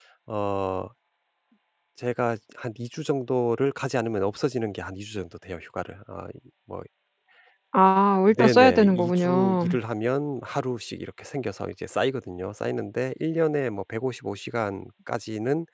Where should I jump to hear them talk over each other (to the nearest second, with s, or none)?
8 s